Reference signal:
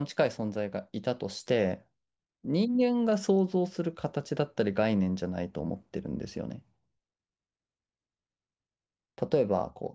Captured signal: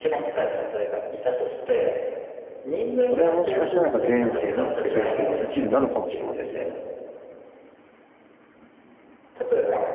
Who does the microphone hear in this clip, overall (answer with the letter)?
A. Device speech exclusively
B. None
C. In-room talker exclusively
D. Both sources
D